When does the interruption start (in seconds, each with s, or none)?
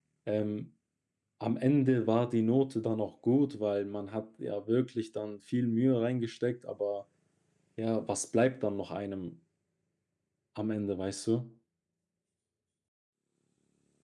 none